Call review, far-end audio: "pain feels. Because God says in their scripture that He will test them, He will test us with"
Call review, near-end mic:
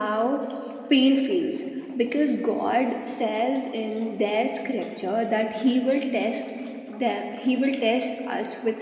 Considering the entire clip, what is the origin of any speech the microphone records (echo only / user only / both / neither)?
echo only